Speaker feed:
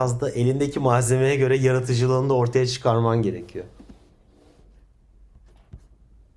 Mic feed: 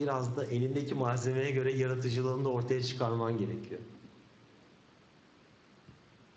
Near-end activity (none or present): none